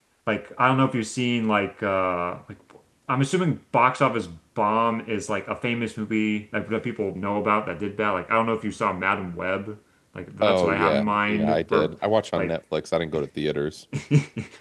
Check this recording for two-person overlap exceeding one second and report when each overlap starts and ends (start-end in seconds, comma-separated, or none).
10.4-11.9